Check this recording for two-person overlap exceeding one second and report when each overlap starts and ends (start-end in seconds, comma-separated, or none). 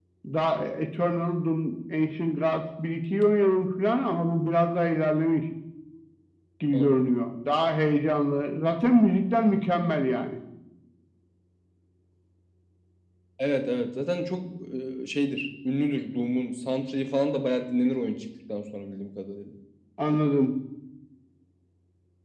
none